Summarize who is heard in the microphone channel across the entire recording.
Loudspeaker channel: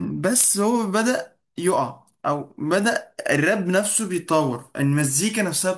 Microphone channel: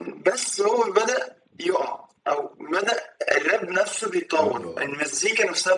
both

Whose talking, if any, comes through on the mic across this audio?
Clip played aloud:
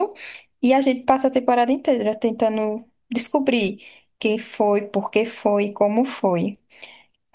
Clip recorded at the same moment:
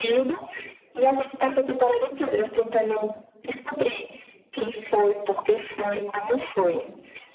echo only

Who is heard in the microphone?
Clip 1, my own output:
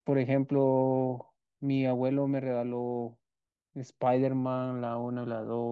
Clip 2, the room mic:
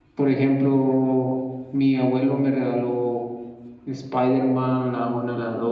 echo only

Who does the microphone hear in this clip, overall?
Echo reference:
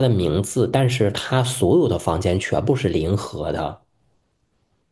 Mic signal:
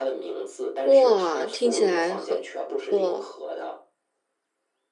both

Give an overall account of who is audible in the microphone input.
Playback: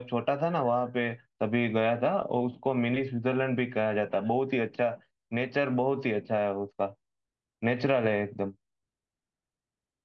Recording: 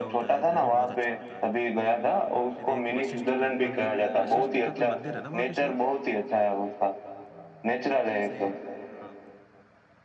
both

